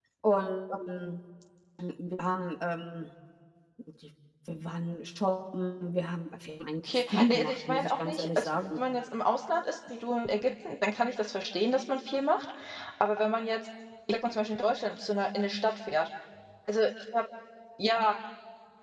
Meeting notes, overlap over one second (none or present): present